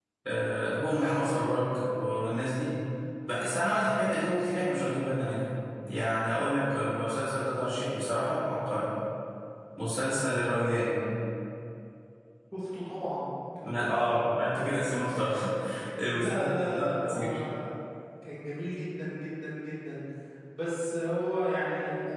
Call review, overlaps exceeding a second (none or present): present